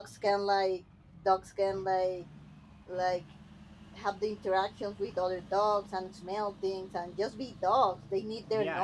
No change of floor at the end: No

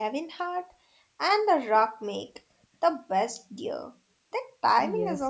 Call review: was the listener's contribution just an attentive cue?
No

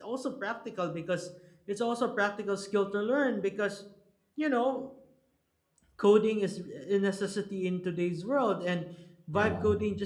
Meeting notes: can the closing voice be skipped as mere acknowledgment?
Yes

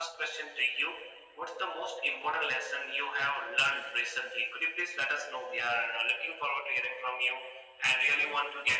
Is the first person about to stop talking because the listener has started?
No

